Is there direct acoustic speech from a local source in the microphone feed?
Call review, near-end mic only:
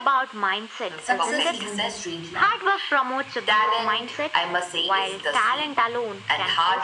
Yes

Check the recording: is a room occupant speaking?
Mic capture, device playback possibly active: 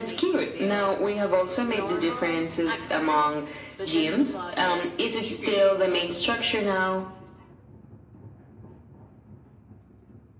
Yes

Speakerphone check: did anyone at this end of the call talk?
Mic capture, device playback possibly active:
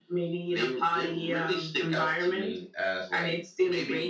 No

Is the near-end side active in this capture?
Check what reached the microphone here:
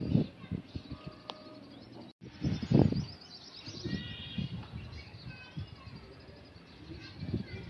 No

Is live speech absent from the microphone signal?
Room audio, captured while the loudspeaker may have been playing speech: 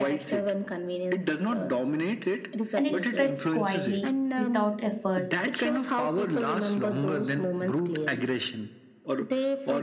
No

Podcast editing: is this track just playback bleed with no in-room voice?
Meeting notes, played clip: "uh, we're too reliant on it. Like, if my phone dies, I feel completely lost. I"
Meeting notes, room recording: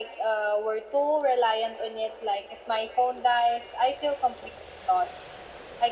Yes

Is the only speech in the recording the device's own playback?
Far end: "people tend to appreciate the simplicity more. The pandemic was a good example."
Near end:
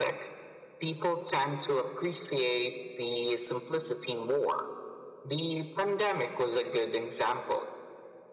Yes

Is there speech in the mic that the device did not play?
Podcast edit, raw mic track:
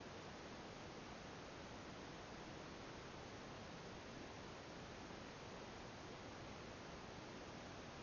No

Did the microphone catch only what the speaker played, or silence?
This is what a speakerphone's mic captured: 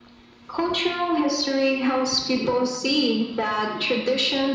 Yes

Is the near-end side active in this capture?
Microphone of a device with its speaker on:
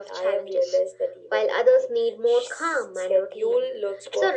No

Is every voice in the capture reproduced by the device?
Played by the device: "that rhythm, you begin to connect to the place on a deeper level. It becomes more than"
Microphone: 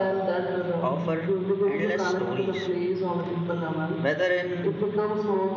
No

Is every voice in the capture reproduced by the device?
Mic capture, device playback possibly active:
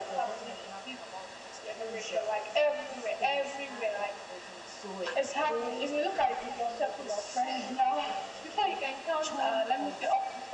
Yes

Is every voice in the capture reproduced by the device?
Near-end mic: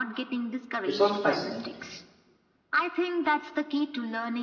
No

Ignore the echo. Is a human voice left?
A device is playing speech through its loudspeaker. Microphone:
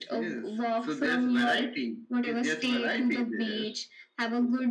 No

